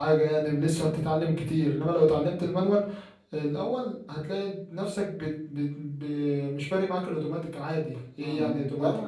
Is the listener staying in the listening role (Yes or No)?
No